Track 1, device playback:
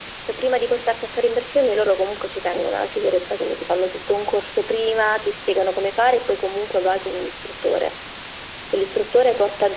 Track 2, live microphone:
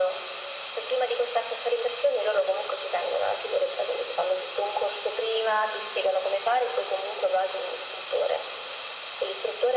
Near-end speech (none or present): none